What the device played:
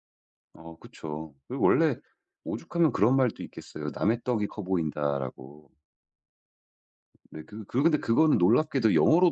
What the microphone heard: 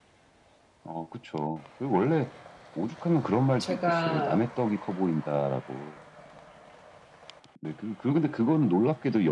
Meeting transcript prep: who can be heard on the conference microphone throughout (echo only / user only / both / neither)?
both